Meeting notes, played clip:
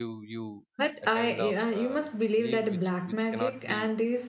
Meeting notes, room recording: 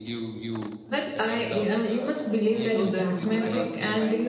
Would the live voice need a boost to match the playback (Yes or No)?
Yes